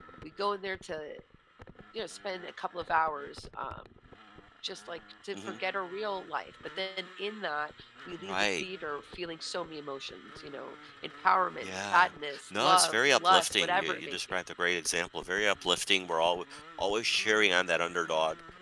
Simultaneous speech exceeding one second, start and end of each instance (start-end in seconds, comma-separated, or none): 12.5-14.2